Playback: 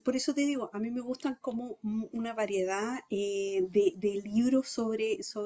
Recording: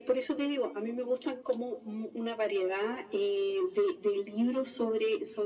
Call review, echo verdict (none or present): present